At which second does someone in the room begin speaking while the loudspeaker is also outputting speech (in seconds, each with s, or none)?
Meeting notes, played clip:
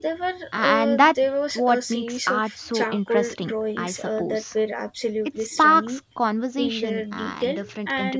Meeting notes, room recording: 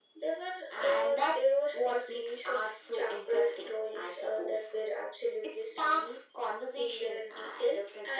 none